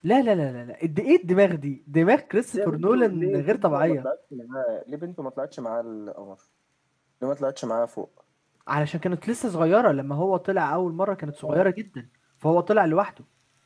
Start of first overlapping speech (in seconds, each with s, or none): 2.4 s